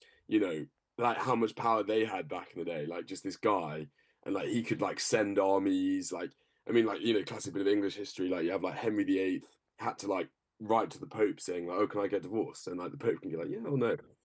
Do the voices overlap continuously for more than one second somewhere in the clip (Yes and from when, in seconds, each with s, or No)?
No